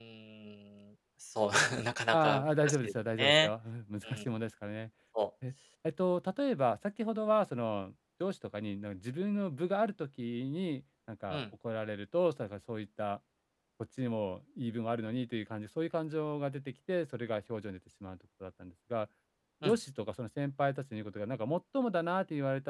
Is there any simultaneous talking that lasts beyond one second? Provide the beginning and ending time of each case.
2.1-3.5

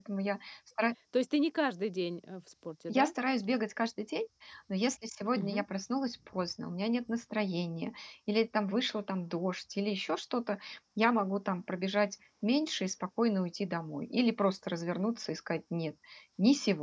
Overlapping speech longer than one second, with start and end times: none

